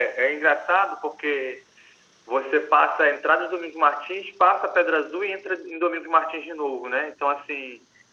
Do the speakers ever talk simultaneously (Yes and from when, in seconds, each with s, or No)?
No